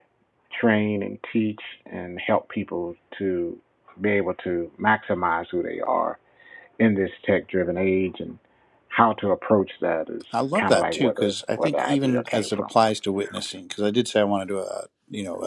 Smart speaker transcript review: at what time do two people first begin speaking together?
10.3 s

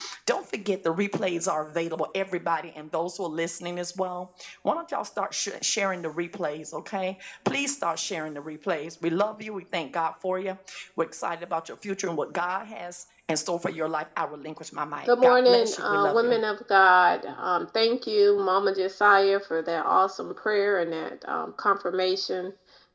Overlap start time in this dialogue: 15.0 s

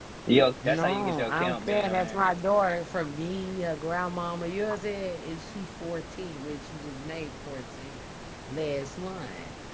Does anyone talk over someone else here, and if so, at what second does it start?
0.7 s

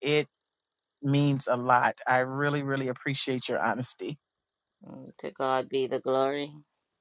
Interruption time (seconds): none

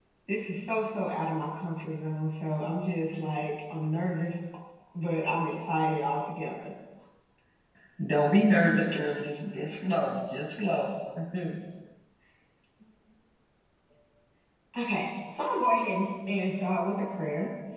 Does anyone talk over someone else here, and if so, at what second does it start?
none

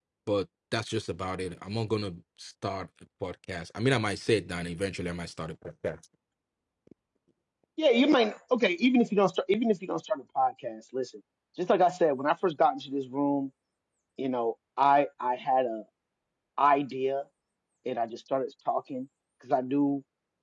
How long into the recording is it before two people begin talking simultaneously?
none

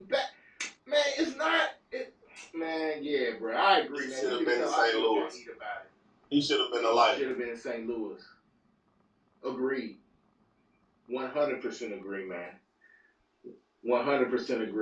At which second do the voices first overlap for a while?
3.9 s

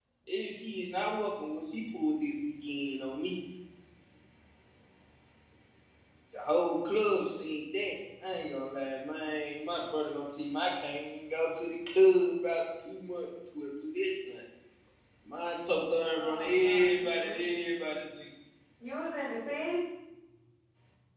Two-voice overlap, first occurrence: 16.1 s

